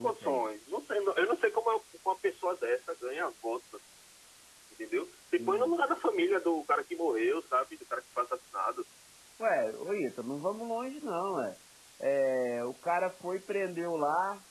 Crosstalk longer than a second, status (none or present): none